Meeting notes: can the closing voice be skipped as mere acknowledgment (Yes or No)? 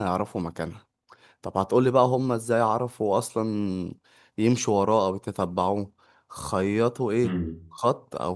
Yes